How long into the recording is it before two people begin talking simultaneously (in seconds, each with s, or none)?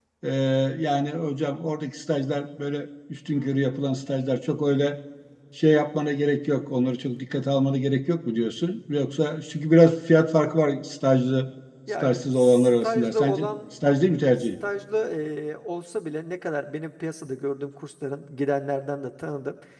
11.9 s